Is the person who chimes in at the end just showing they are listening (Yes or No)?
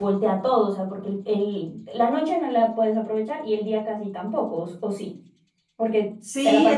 No